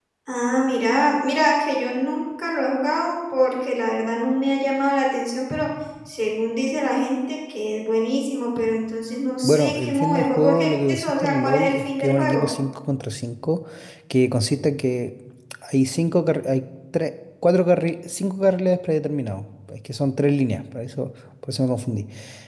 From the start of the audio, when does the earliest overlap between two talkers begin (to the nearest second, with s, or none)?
9 s